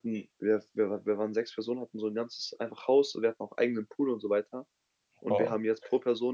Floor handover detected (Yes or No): No